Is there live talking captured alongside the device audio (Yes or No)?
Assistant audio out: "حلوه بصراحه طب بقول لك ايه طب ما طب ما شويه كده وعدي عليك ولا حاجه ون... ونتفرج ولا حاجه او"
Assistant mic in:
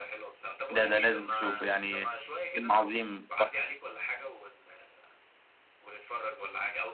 Yes